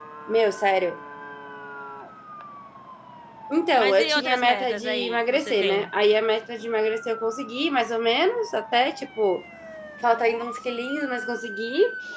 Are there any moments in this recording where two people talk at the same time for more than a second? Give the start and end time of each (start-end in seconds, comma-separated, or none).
3.8-5.9